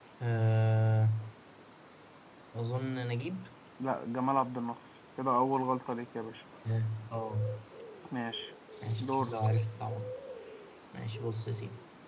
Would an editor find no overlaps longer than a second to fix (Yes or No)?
Yes